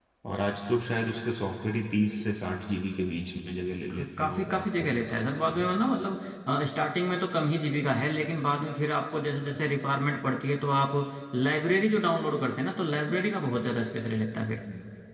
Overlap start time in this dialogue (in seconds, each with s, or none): 3.9 s